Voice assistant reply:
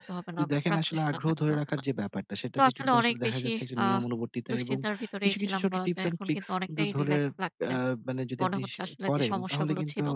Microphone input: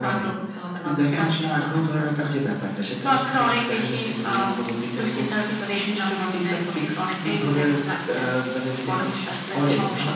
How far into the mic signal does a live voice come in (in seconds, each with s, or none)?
none